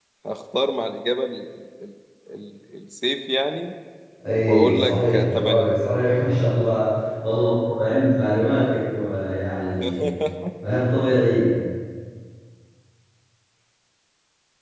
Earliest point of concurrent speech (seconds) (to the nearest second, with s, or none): 4 s